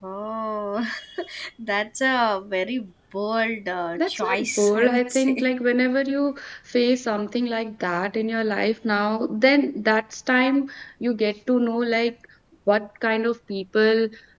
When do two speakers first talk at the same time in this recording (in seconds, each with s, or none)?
4.0 s